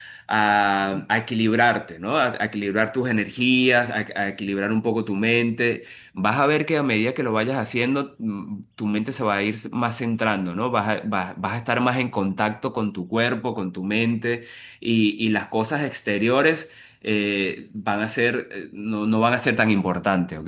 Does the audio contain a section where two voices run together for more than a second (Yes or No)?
No